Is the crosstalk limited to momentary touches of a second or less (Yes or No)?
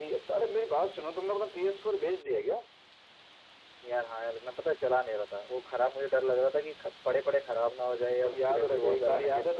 No